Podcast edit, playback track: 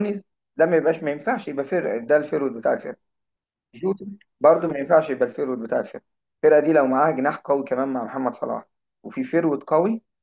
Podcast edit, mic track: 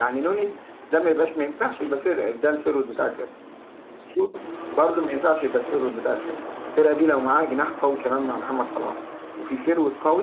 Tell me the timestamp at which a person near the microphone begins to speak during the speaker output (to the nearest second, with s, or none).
none